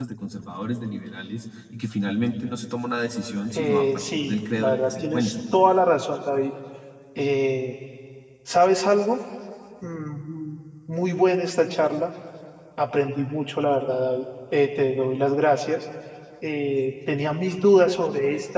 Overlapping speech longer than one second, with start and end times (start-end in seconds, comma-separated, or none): 3.5-5.3